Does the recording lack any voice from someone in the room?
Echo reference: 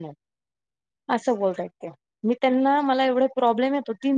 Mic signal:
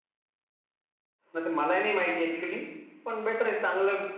No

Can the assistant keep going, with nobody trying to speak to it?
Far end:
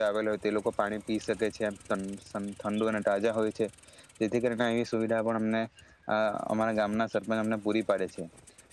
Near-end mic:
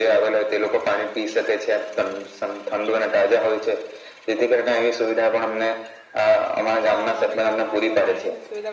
No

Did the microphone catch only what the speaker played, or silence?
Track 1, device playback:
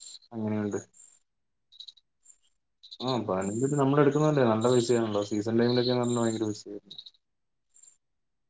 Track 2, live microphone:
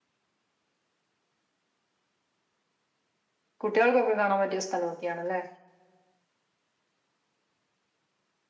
No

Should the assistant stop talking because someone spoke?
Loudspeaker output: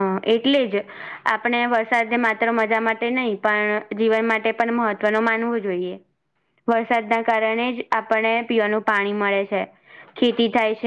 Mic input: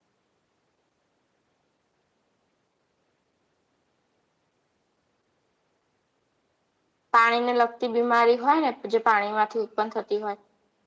Yes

